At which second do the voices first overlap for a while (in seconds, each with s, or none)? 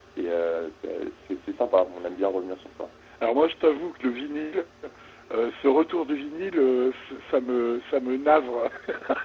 none